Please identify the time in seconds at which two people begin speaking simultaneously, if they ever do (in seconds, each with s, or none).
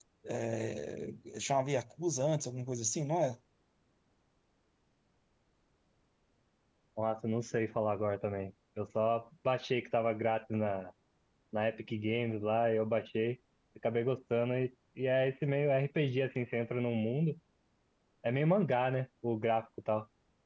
none